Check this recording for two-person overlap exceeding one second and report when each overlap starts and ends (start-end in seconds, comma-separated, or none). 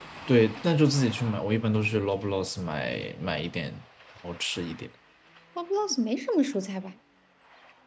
none